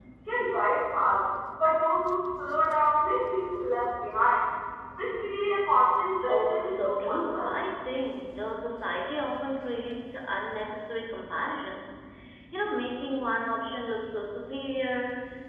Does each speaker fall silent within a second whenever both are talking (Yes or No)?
No